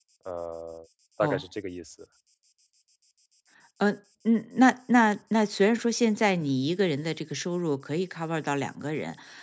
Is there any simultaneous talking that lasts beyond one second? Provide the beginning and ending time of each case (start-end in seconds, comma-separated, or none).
none